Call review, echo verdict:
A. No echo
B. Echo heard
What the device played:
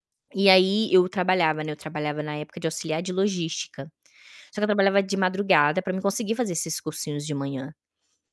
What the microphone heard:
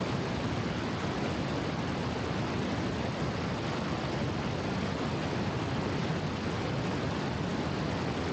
A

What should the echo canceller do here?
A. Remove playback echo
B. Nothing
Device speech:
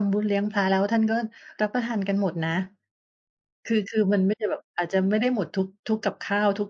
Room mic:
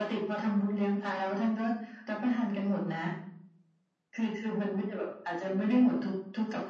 A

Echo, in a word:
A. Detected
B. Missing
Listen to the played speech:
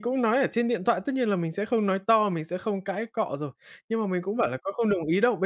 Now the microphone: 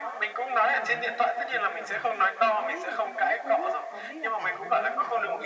A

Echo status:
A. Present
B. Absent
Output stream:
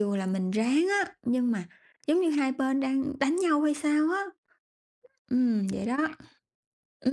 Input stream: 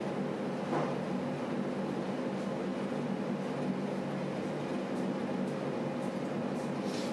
B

